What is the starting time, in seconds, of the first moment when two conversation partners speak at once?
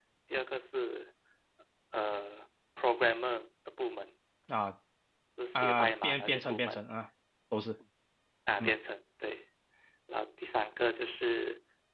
6 s

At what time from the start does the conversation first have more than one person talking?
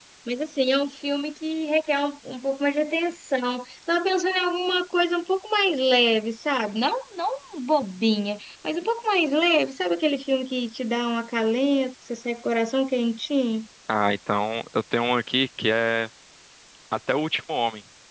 none

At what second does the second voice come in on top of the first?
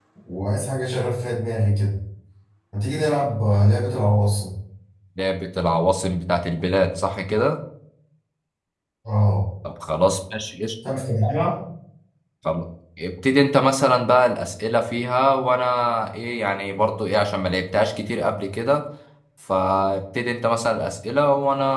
none

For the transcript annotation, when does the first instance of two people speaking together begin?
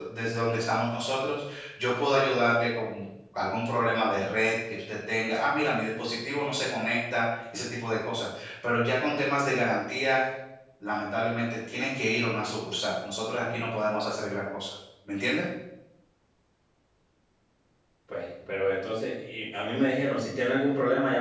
none

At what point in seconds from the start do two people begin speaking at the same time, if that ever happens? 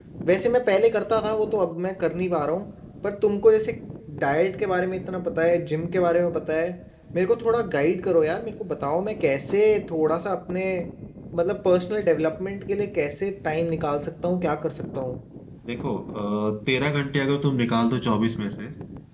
none

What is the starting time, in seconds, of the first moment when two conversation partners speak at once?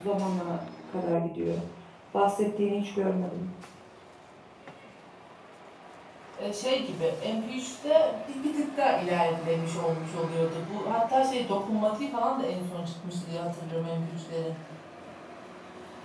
none

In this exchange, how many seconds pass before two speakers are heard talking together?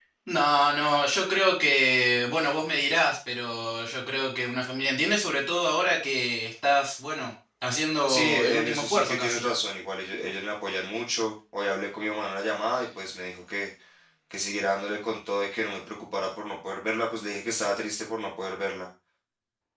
8 s

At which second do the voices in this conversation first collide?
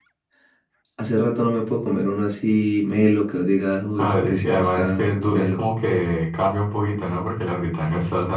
4 s

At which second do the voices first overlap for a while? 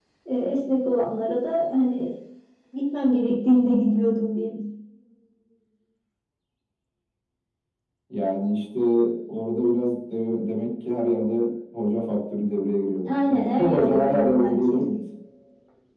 13 s

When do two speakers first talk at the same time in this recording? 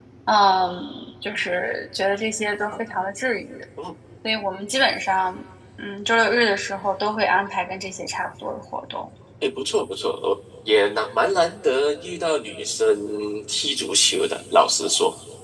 none

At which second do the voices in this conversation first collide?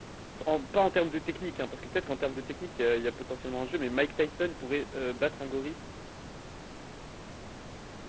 none

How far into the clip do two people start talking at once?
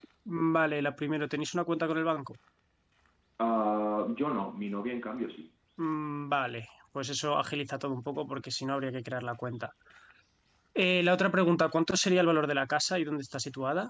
none

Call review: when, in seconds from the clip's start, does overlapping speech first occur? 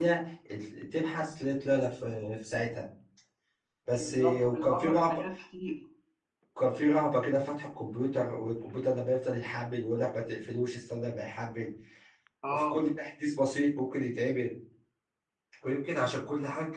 4 s

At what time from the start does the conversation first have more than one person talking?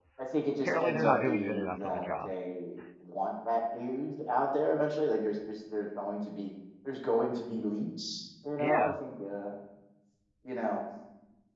1 s

